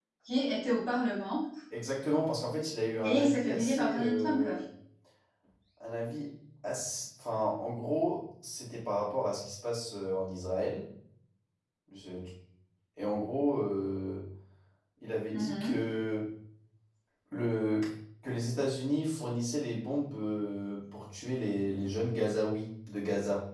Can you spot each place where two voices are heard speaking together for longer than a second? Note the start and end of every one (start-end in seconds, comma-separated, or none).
3.0-4.4